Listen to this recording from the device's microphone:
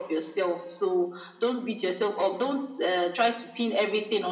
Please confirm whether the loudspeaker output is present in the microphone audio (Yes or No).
Yes